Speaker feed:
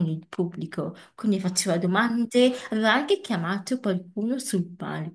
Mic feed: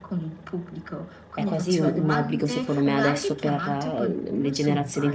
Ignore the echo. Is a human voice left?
Yes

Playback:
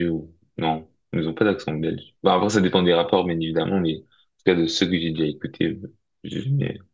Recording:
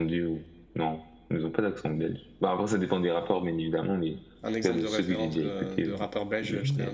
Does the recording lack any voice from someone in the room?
No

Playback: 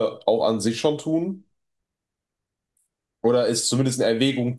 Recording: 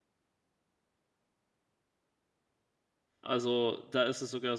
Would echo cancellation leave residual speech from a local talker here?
Yes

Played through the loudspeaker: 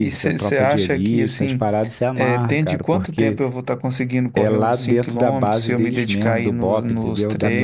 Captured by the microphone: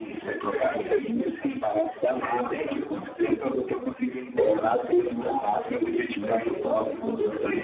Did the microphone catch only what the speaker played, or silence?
Yes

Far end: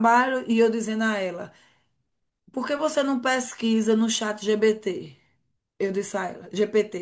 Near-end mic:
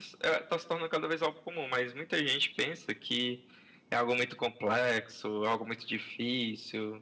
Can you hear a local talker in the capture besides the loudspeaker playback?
Yes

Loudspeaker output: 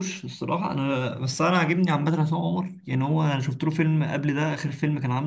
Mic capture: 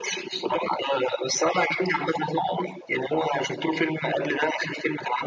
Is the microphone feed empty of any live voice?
Yes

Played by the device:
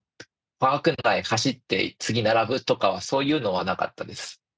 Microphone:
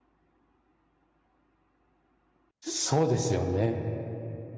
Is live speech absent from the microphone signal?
No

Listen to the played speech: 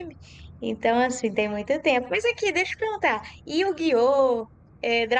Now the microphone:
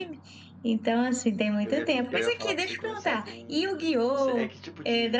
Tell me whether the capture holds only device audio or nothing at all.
No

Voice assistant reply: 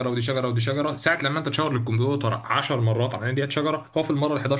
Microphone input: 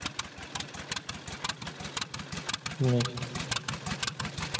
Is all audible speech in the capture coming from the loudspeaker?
No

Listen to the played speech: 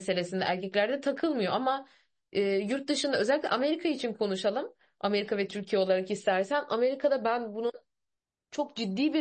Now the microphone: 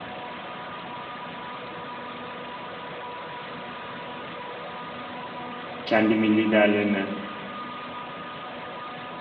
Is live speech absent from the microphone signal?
No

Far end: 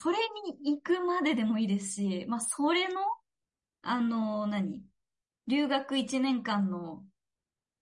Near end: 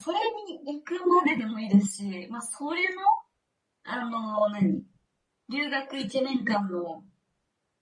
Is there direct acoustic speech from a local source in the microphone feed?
No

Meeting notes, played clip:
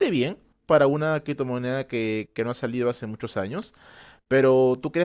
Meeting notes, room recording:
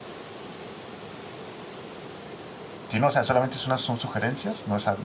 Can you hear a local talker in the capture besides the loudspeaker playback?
Yes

